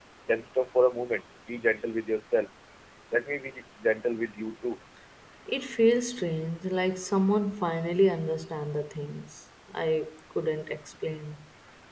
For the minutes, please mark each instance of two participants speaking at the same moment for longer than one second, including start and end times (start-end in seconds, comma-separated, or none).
none